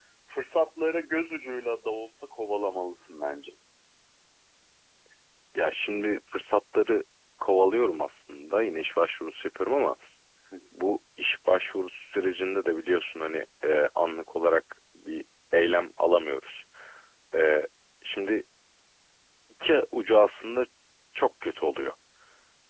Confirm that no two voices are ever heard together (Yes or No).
Yes